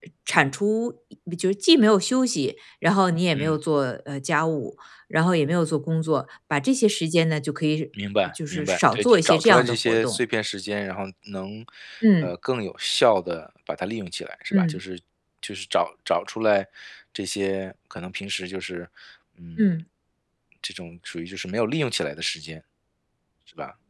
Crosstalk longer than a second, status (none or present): present